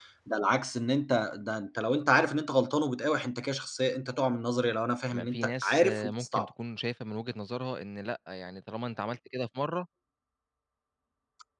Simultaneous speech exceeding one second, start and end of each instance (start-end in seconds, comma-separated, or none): 5.1-6.5